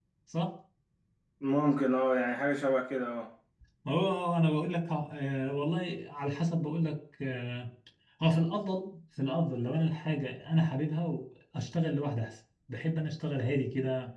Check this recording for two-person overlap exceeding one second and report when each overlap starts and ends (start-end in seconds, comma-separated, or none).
none